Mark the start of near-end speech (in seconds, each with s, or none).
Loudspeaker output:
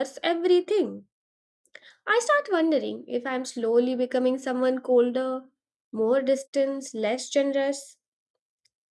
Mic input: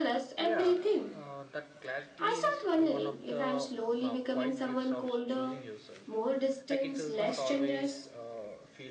0.4 s